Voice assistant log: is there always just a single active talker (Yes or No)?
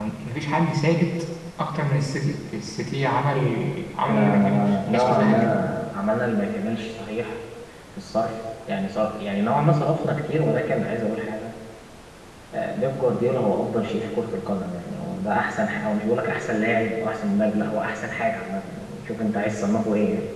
No